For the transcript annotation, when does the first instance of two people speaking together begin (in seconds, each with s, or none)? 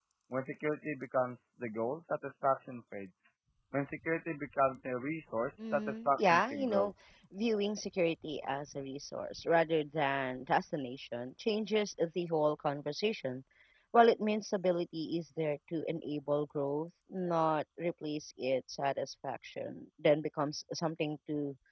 5.6 s